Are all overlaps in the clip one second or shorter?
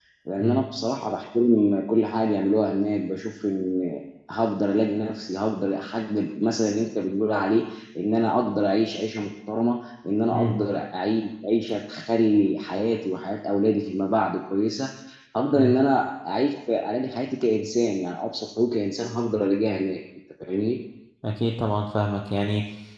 Yes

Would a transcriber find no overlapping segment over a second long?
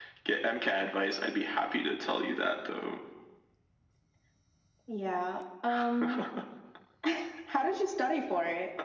Yes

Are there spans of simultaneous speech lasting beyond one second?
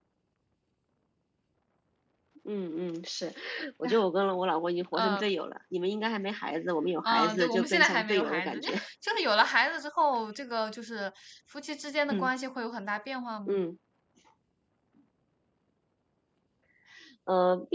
Yes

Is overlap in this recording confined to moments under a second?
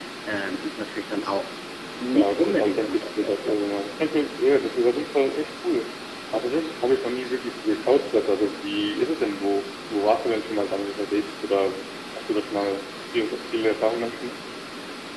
No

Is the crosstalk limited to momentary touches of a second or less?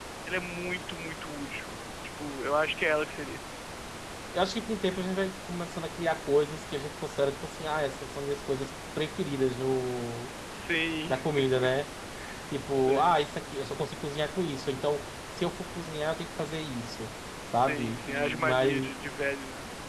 No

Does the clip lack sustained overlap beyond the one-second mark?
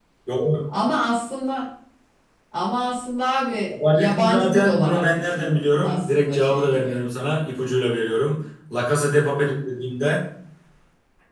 No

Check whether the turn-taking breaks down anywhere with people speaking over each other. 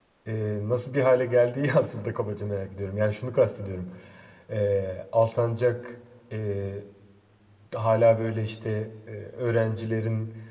No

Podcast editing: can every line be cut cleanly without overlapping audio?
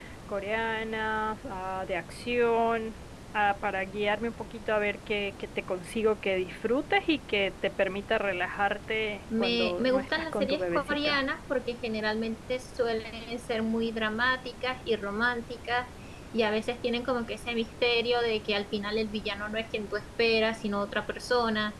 No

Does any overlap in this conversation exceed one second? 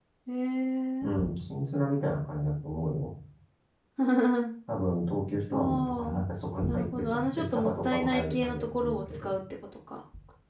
Yes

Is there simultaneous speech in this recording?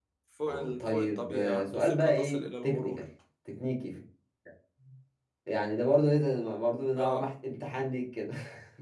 Yes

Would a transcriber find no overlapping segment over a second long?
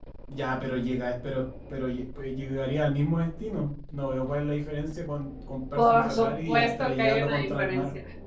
No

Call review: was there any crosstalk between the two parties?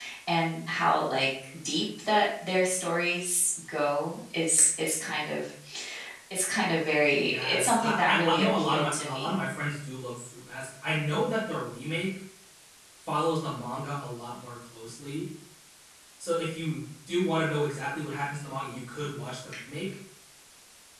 Yes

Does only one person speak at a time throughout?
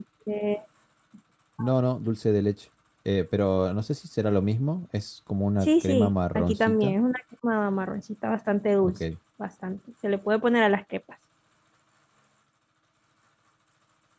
No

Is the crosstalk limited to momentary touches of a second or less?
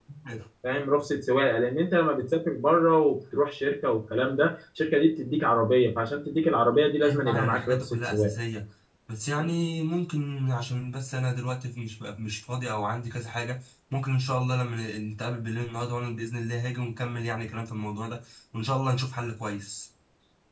No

